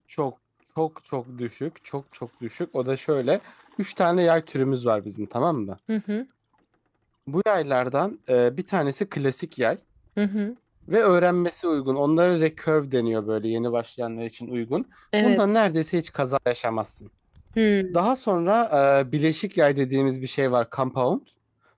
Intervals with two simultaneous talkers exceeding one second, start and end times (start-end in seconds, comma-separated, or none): none